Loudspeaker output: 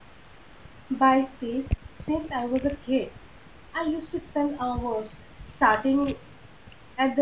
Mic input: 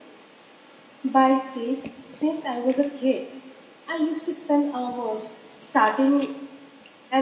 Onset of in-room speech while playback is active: none

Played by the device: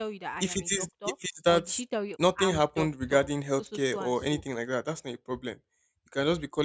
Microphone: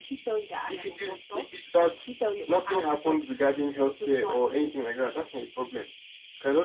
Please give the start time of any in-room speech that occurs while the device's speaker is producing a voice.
none

